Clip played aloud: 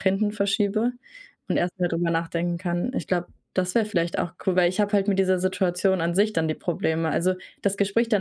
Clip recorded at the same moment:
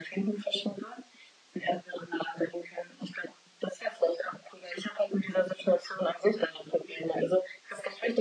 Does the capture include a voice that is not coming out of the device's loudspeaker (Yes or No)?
No